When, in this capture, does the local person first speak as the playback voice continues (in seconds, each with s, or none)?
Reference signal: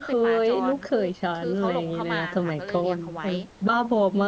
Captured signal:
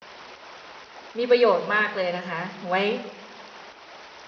1.2 s